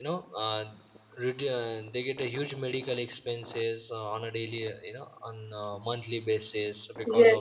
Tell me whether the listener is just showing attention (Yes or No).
No